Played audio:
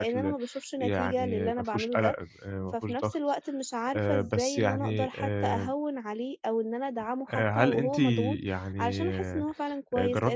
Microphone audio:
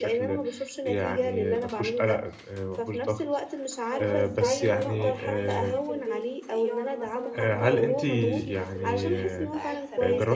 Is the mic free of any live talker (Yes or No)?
No